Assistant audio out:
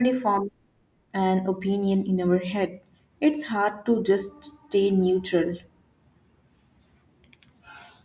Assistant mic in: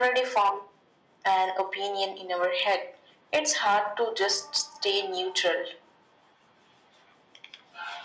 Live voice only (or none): none